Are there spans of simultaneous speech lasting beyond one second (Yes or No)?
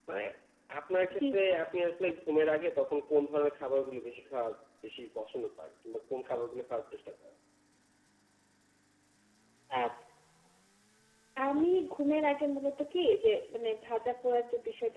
No